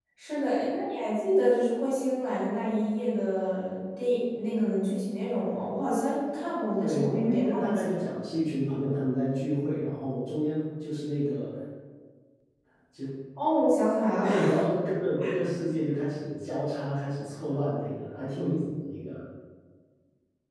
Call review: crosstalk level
present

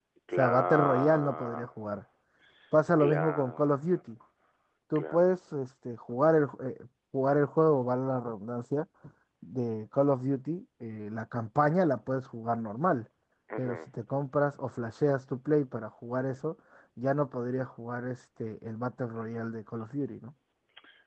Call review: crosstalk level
present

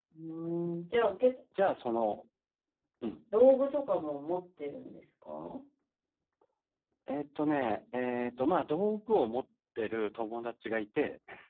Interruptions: none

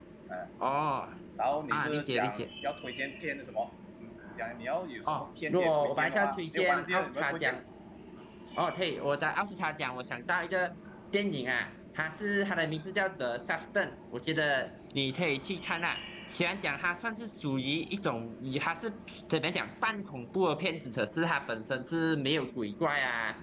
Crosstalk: present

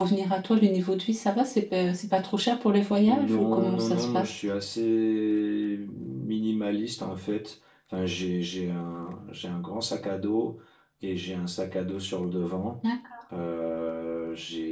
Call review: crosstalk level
present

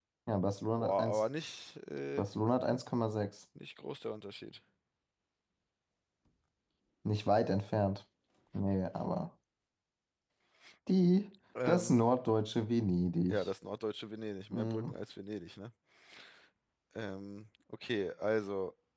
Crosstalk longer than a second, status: none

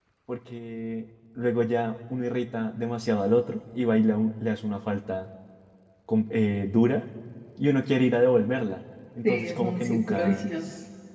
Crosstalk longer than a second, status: present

